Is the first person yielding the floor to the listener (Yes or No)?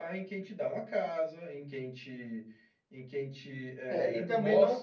Yes